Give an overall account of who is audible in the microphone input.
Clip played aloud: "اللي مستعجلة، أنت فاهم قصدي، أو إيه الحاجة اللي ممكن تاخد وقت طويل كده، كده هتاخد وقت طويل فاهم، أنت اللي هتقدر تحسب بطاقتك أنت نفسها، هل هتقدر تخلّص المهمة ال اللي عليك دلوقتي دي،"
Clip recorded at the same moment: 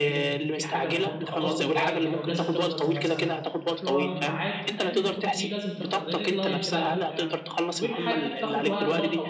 both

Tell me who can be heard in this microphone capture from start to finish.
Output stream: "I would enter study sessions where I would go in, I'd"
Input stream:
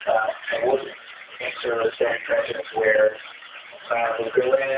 echo only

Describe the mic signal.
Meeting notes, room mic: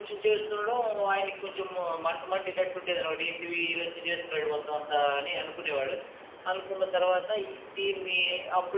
echo only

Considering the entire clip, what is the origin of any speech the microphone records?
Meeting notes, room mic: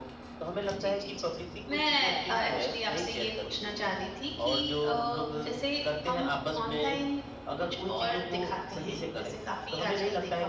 both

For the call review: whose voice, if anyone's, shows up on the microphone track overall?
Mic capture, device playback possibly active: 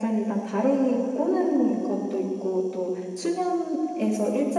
echo only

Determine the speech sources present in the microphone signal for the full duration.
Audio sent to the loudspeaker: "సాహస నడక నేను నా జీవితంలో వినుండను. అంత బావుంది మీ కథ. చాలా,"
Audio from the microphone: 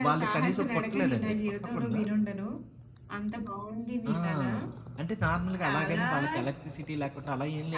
both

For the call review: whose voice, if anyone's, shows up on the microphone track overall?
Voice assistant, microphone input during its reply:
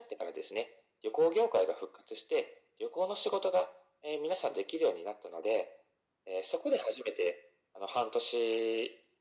echo only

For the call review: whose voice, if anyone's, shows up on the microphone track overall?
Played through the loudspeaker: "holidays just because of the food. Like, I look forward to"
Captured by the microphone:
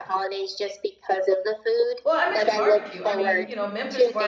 both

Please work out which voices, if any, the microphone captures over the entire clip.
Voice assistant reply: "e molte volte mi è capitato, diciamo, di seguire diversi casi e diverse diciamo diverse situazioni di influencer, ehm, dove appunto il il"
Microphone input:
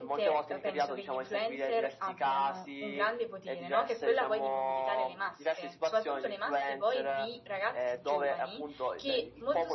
both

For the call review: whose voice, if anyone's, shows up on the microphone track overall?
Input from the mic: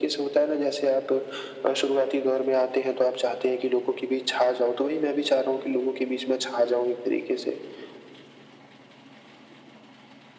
echo only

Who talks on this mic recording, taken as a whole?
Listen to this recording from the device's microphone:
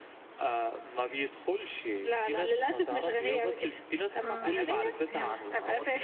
both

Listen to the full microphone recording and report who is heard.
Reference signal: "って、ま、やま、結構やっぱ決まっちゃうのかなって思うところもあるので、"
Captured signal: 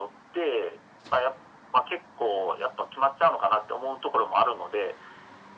echo only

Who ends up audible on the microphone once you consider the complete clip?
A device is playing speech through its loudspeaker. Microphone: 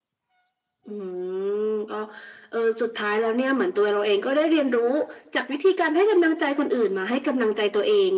echo only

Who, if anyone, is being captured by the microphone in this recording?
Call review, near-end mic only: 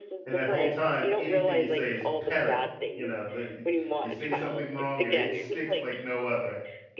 both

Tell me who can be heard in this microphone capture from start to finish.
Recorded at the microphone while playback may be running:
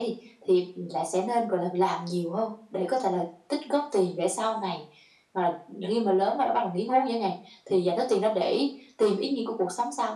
echo only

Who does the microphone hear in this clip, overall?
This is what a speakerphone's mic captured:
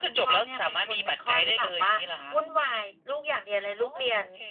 echo only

